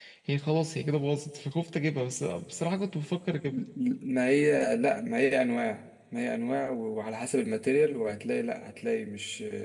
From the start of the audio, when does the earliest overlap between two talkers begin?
none

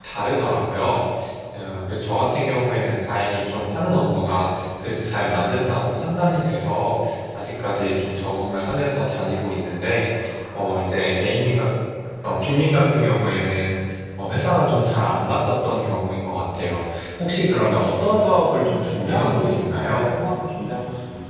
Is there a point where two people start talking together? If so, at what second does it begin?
18.7 s

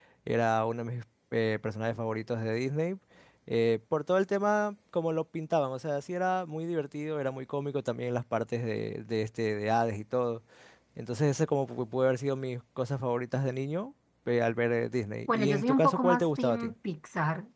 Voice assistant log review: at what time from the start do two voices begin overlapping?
15.3 s

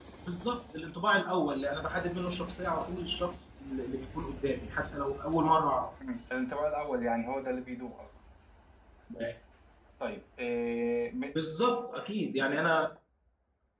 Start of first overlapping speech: none

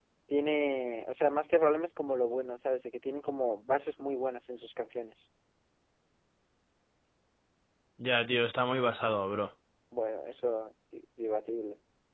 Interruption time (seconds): none

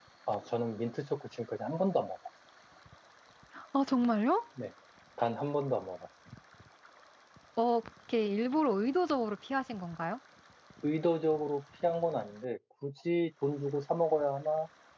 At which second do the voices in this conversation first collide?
none

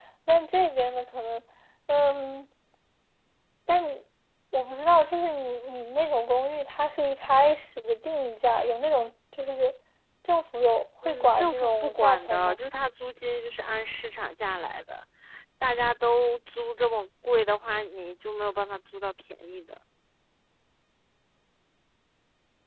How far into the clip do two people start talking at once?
11.1 s

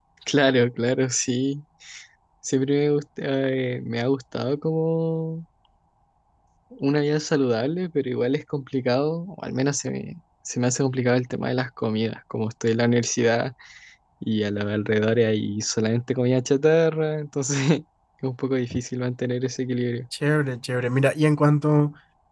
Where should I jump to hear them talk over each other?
none

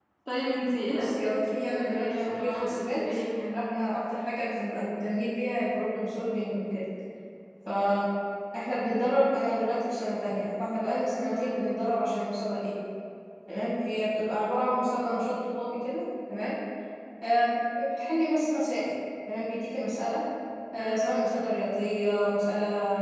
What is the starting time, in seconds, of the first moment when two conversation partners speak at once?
0.9 s

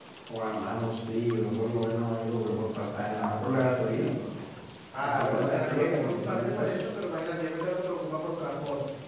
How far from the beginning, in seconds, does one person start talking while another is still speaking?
5.0 s

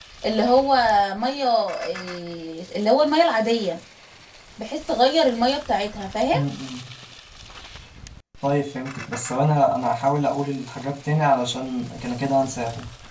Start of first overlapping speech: none

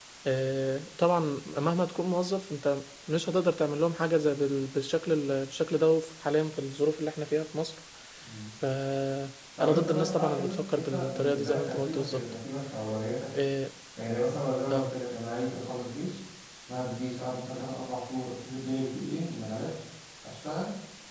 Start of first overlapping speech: 9.6 s

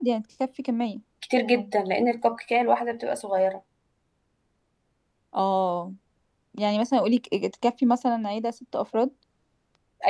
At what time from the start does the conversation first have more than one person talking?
none

